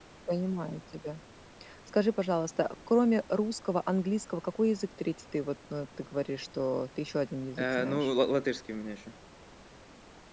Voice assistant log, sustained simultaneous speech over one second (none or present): none